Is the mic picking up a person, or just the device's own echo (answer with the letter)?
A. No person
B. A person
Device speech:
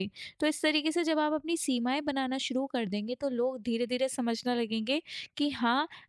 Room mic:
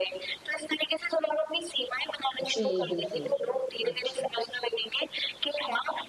B